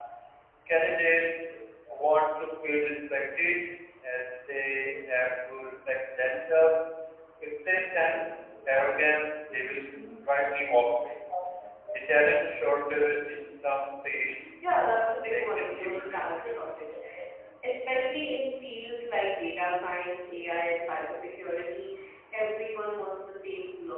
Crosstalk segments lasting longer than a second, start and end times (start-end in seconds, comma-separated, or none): 14.8-16.6